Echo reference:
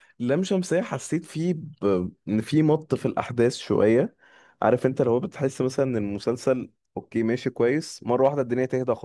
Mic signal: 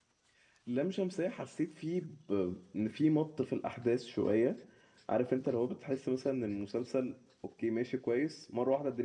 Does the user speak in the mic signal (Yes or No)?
No